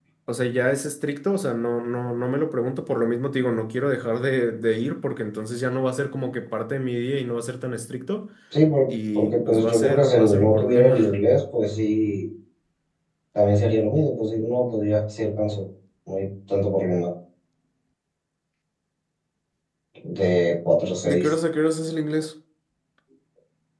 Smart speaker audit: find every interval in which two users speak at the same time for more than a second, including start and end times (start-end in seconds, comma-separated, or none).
8.9-11.1